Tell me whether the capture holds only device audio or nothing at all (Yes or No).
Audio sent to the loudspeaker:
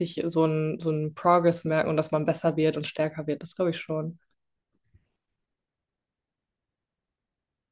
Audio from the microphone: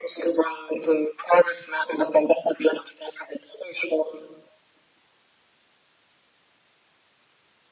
Yes